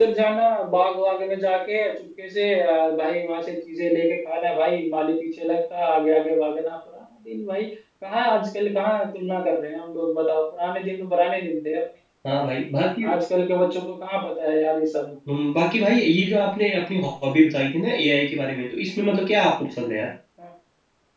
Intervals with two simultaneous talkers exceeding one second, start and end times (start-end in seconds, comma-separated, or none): none